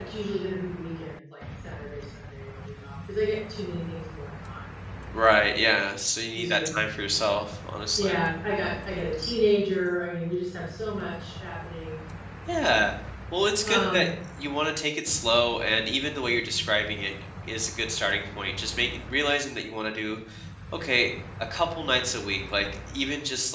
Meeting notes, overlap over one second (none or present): none